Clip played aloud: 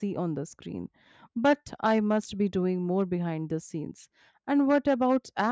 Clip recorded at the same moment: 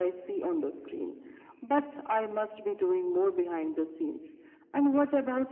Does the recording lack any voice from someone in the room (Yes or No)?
Yes